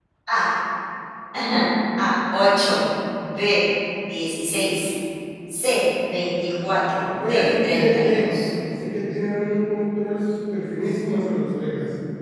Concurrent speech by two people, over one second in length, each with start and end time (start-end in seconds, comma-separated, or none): 7.2-8.5